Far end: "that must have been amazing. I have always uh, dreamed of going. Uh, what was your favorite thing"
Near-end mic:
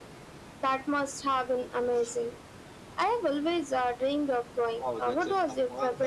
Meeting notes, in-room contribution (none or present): present